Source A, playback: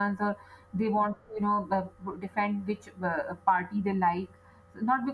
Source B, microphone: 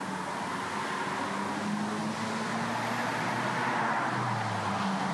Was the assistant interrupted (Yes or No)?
No